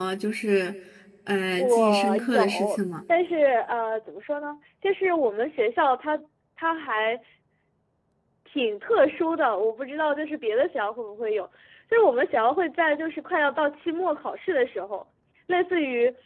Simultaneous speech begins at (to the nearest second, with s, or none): 2 s